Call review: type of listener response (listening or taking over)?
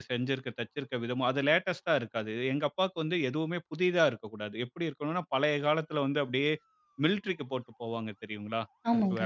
listening